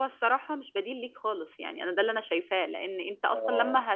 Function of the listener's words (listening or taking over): listening